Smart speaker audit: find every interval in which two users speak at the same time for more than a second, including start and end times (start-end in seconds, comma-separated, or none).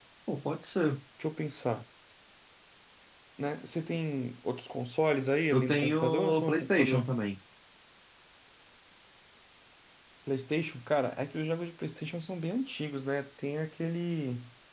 5.5-7.1